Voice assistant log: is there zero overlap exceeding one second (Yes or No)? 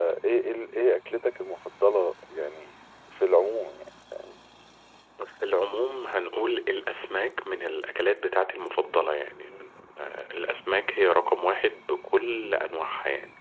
Yes